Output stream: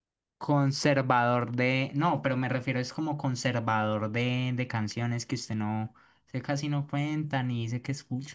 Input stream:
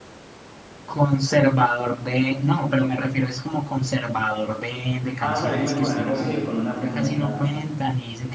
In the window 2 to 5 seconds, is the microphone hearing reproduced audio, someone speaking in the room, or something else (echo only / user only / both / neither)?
echo only